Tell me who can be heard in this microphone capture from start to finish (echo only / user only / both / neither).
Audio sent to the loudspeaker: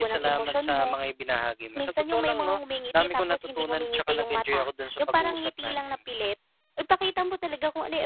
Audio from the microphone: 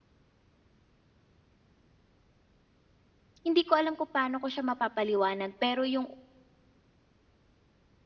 user only